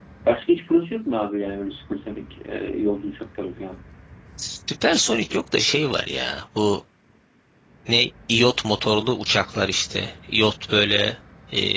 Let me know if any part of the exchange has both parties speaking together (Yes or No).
No